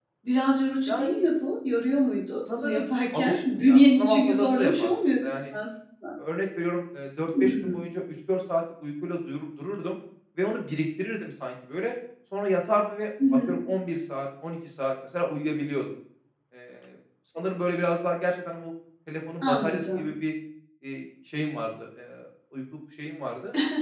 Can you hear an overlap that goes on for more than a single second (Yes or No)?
Yes